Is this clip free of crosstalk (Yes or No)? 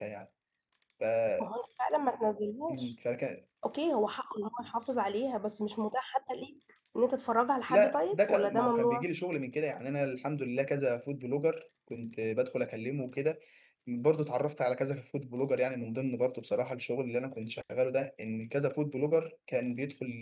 No